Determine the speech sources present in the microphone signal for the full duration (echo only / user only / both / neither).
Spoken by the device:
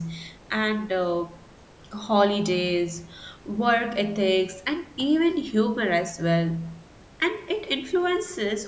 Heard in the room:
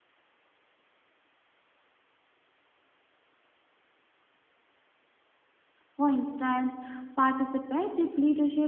user only